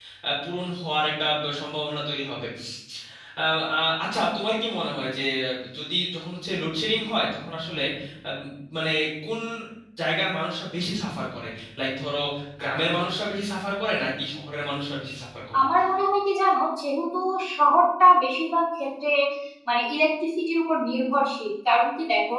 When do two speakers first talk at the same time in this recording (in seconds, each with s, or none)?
none